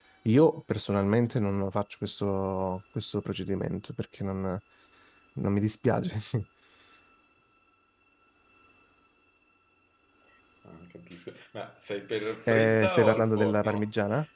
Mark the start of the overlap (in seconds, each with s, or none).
12.5 s